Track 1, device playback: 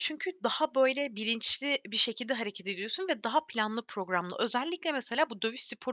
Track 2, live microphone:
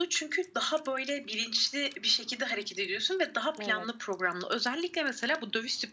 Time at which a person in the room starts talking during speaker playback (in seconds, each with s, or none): 3.6 s